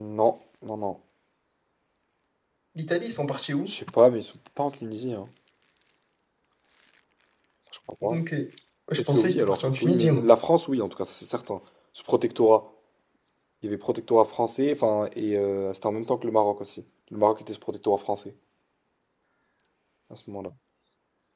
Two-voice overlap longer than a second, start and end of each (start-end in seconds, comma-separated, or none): 9.0-10.2